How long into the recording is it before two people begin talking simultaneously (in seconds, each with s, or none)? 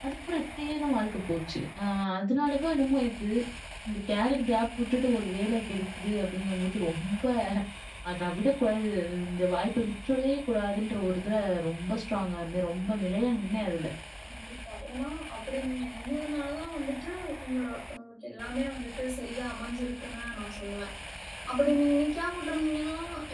none